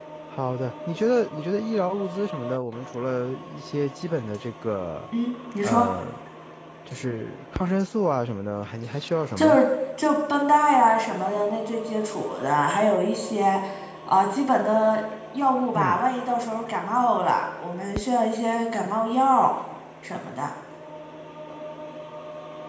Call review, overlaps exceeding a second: none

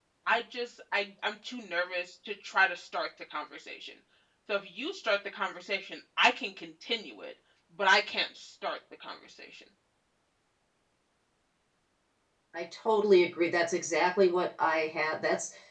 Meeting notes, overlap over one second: none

